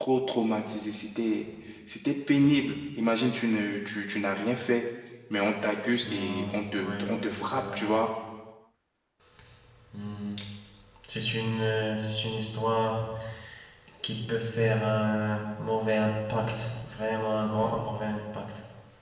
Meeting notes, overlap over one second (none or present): present